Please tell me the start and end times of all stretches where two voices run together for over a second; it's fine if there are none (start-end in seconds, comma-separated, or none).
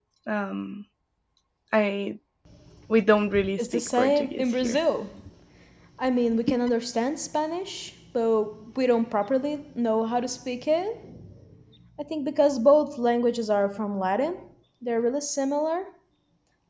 3.6-4.8